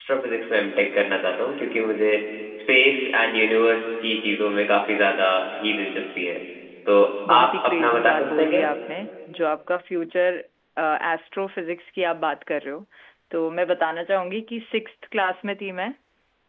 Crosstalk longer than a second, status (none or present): present